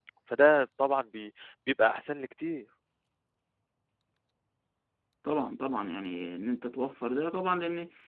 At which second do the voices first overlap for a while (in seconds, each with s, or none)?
none